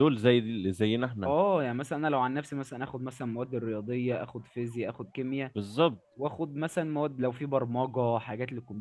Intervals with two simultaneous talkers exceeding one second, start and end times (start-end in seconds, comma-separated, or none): none